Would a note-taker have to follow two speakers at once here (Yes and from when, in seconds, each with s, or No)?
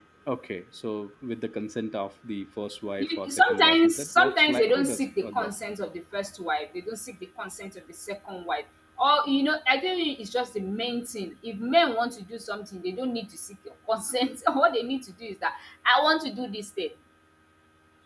Yes, from 3.0 s